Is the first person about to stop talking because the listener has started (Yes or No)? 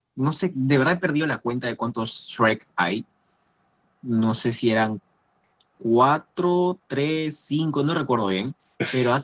No